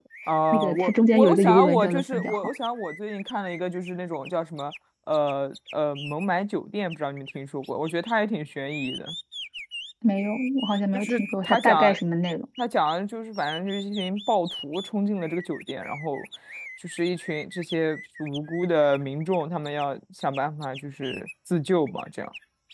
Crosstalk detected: Yes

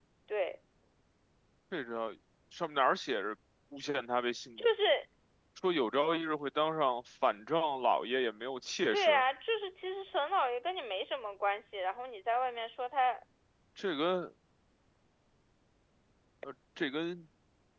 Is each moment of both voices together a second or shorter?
Yes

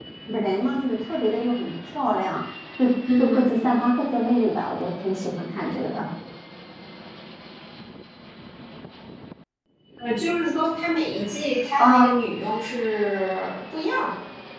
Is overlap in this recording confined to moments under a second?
Yes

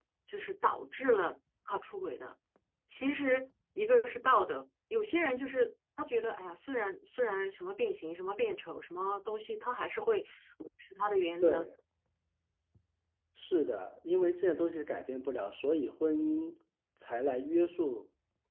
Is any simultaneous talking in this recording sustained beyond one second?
No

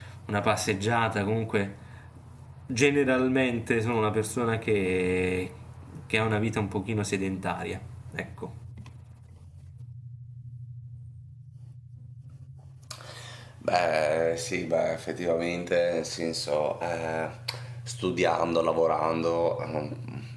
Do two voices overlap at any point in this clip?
No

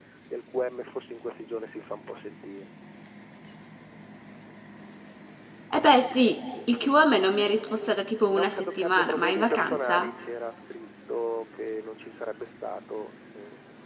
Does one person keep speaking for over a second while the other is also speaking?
Yes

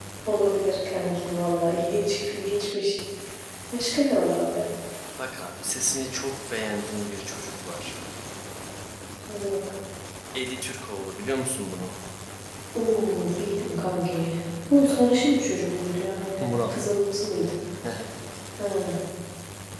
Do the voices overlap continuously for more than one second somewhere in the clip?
No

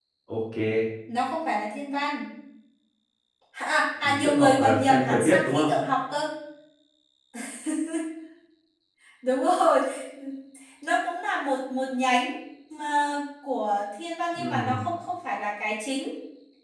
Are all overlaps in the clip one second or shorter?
No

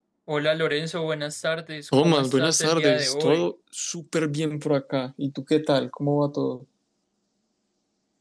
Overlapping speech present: Yes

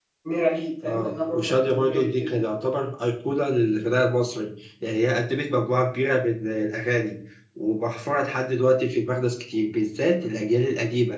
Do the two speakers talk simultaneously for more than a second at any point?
Yes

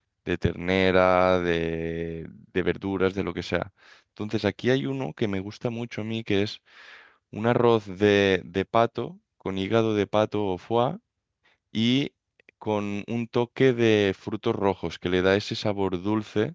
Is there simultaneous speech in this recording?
No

